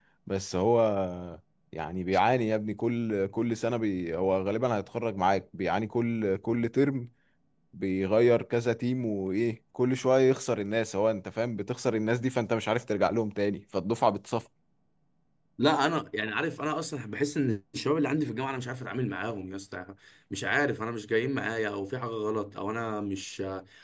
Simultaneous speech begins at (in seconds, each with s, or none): none